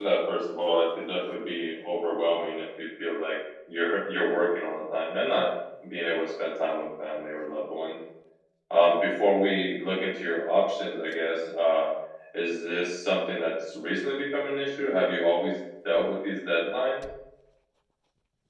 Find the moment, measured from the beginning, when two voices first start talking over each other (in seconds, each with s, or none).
none